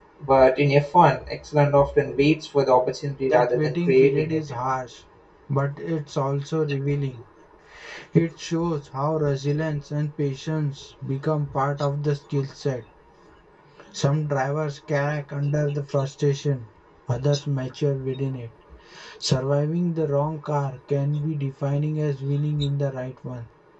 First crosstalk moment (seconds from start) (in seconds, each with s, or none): 3.3 s